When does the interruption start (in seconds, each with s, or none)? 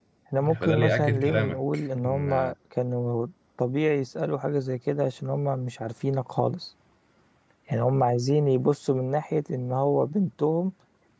0.6 s